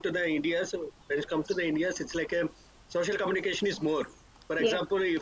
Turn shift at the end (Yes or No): No